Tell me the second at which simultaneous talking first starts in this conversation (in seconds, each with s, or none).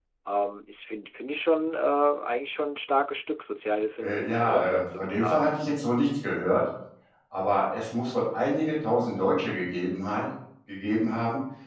4.0 s